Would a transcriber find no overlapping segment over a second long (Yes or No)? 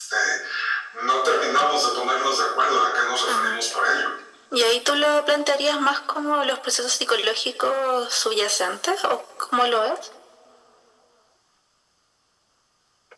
Yes